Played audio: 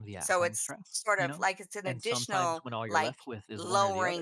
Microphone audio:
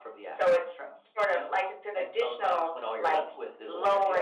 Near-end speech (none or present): none